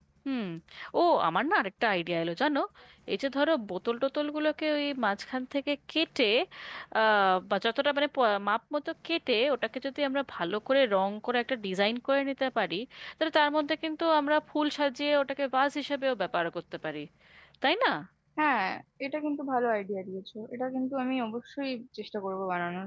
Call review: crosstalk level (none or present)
none